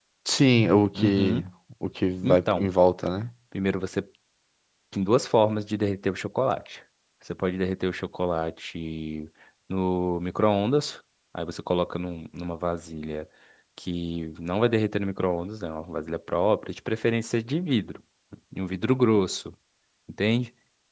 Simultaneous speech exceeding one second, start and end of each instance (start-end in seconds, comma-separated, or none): none